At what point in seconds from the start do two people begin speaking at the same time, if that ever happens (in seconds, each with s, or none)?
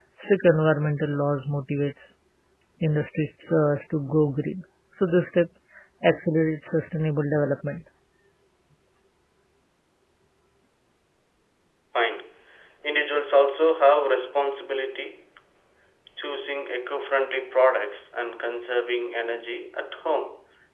none